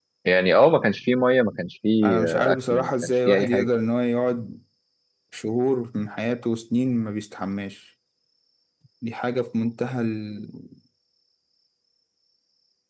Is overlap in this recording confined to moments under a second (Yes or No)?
No